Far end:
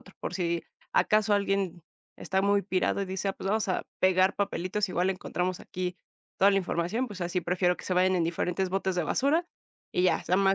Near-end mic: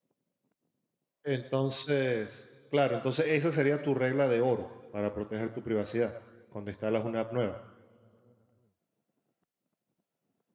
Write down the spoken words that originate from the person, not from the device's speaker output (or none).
Entonces, claro, entonces esa sería tu regla de oro para proteger tu privacidad cuando instalas una app nueva.